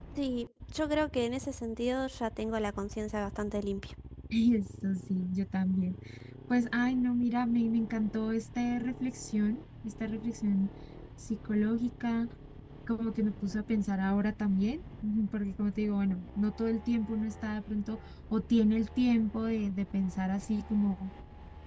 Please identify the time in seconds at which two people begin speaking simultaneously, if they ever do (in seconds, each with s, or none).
none